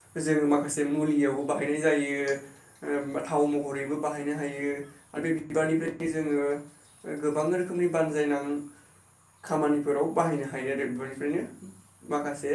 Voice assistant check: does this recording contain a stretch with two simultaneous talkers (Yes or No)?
No